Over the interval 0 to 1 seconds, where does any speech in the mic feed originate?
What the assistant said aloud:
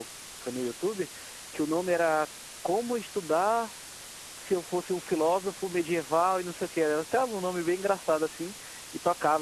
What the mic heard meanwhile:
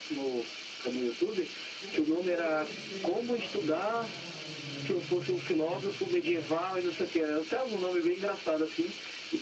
echo only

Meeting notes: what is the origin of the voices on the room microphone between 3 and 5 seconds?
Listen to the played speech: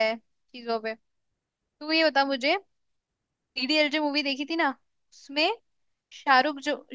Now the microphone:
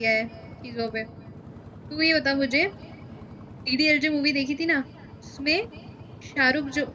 echo only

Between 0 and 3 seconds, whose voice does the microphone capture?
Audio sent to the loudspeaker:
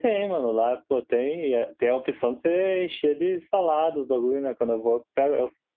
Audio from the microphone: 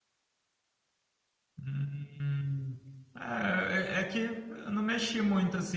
user only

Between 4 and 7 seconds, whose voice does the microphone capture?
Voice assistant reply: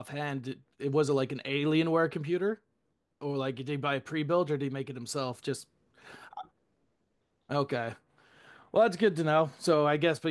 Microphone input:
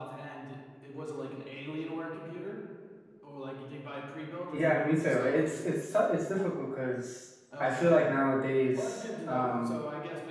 both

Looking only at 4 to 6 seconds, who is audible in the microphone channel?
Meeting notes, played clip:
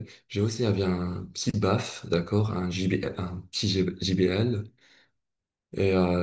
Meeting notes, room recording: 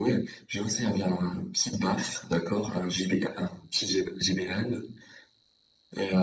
echo only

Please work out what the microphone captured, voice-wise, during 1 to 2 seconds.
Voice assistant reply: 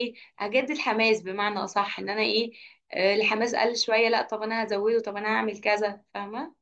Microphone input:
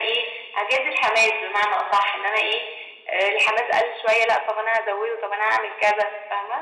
echo only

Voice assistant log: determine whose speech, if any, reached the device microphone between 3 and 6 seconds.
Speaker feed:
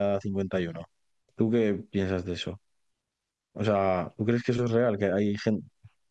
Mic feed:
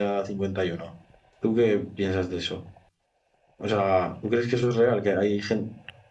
echo only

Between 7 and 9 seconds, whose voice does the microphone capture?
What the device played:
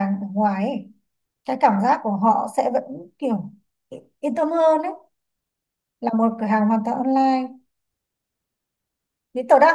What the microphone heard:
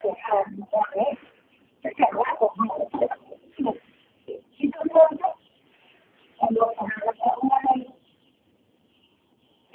echo only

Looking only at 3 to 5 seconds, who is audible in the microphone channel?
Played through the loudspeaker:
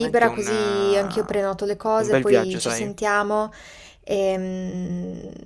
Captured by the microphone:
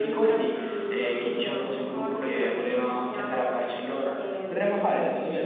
both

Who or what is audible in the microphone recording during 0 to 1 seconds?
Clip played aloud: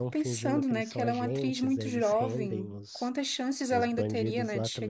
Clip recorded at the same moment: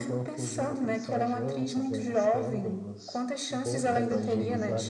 echo only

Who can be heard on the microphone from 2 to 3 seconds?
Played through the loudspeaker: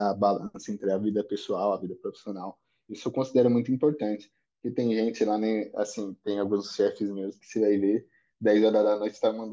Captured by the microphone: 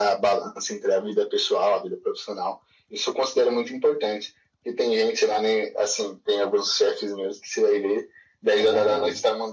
echo only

